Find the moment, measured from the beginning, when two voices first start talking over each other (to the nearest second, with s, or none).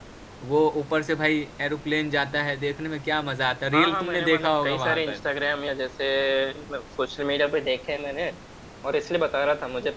4 s